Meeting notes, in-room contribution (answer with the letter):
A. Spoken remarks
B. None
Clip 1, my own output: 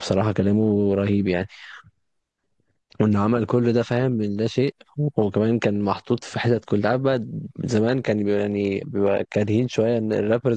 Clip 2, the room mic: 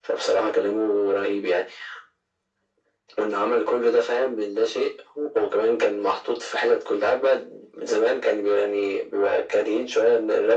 B